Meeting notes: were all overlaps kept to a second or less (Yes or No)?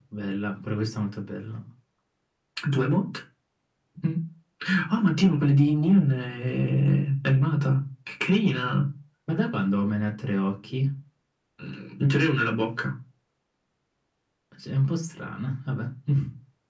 Yes